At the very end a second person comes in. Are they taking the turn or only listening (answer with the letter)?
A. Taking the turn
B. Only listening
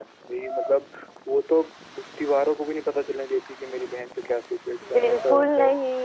A